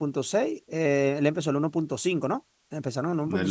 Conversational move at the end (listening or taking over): taking over